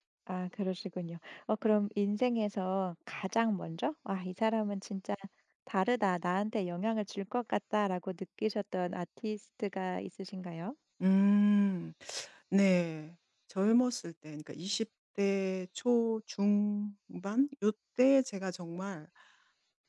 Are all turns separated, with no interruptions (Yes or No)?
Yes